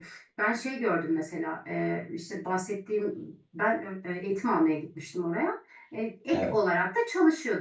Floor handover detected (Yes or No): No